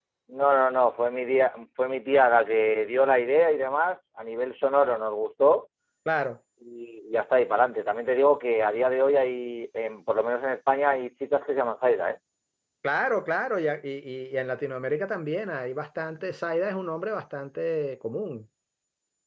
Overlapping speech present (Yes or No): No